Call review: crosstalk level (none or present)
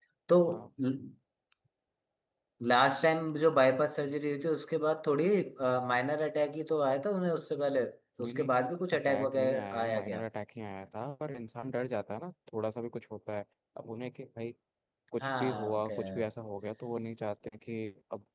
present